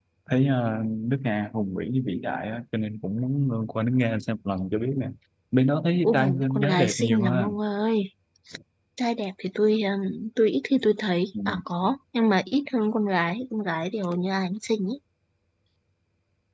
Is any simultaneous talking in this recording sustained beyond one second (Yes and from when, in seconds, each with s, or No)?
Yes, from 6.0 s